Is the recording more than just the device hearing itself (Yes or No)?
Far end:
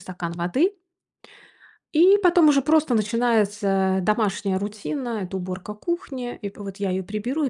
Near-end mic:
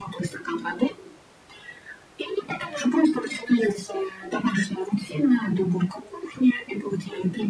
No